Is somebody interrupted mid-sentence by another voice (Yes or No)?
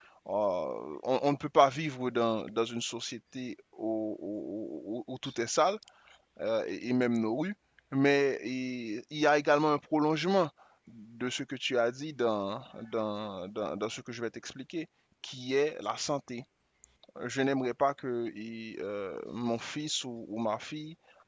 No